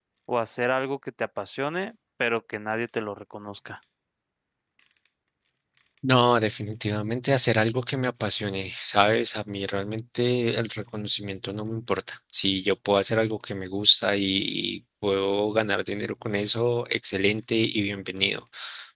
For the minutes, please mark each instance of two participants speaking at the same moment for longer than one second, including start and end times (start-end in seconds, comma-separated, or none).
none